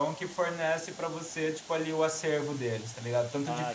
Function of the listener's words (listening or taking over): listening